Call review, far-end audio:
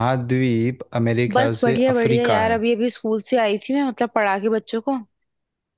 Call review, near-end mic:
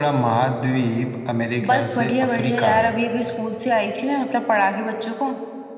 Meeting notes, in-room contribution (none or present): none